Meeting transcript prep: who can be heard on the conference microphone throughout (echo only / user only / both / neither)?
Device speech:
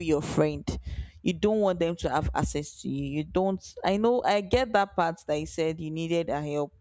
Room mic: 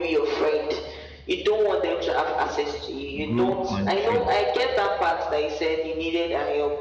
both